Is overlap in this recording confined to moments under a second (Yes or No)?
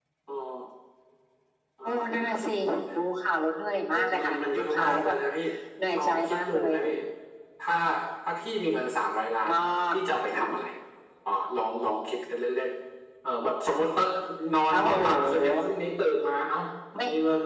No